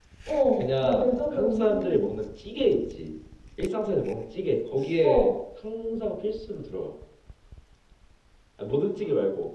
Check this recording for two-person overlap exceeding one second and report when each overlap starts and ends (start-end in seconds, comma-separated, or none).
0.6-2.1